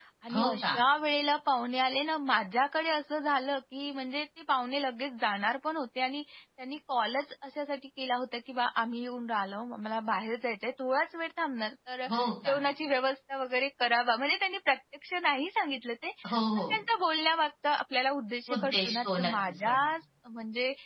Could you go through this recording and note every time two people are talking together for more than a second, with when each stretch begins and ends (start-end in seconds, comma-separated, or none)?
18.6-19.8